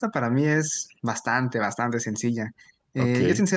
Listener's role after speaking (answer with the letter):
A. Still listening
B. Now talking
A